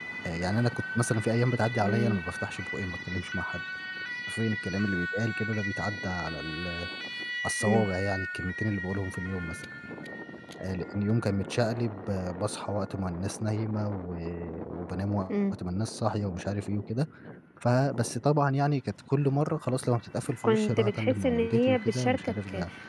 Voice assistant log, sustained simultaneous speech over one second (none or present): present